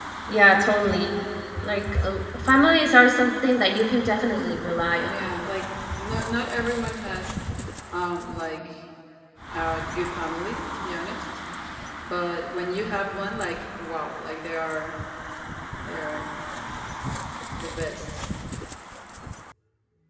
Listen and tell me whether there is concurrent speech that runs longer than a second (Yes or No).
No